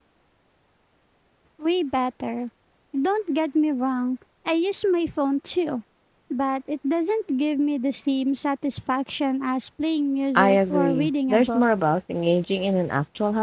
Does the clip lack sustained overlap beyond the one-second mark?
No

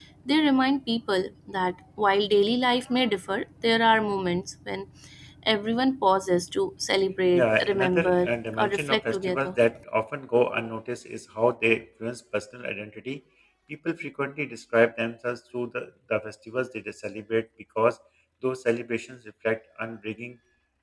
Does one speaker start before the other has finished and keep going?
Yes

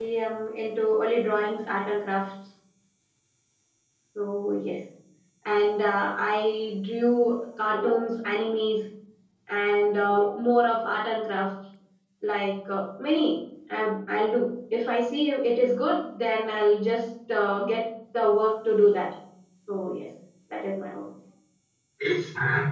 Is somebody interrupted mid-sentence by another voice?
No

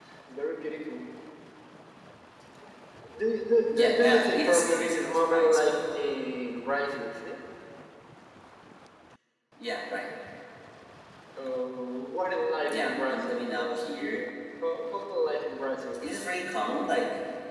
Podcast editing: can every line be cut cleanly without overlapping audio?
No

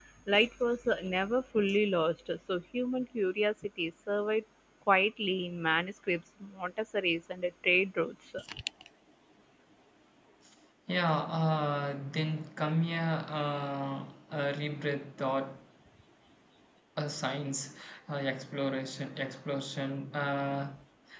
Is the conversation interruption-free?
Yes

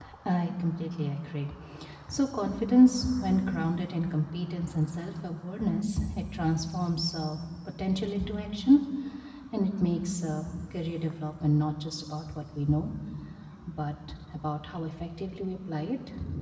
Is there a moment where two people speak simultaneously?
No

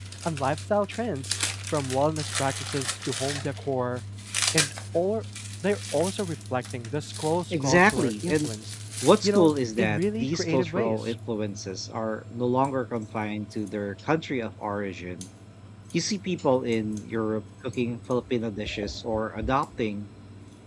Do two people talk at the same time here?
Yes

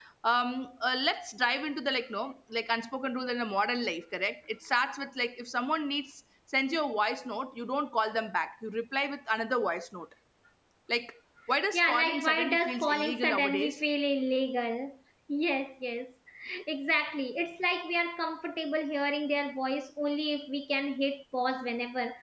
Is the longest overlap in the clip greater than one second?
Yes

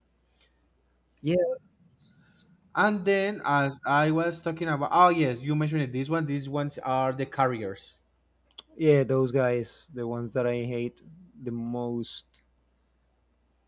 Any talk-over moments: No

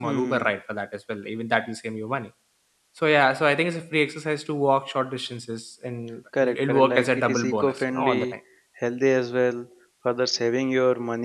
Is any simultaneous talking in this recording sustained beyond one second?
Yes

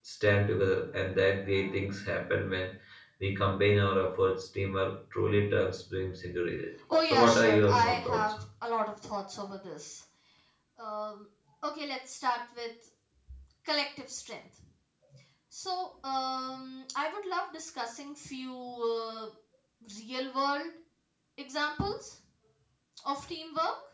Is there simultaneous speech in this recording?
Yes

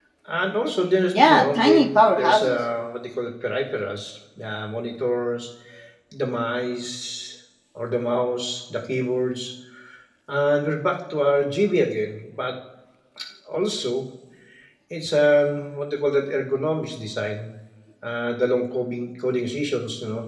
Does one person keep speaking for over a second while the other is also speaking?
Yes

